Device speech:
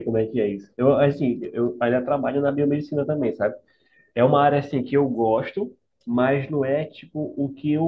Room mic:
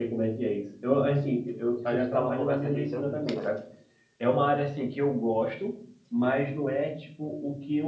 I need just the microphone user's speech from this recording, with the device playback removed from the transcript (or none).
sustentar uma conversa ali tranquilo, sabe?